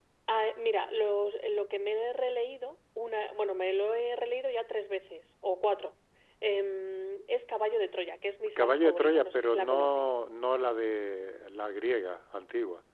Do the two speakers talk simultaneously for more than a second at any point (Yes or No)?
Yes